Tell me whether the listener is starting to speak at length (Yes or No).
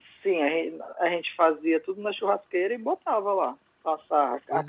Yes